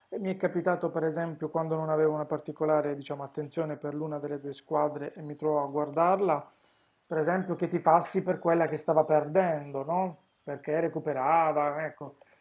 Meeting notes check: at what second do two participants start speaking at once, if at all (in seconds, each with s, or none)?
none